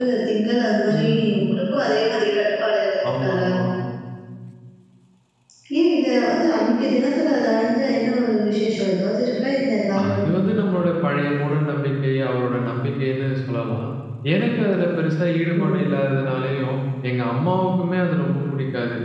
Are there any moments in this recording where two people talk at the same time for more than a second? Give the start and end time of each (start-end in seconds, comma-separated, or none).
none